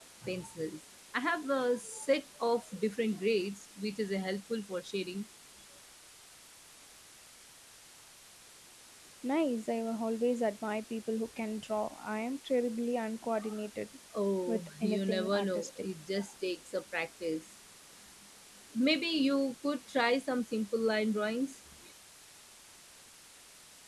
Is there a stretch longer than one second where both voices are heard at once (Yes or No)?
Yes